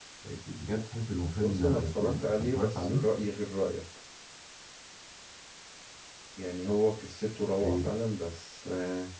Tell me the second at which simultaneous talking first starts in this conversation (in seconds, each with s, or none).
1.4 s